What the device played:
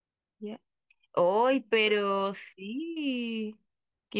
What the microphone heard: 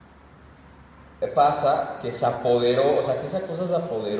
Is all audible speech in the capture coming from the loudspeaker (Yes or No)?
No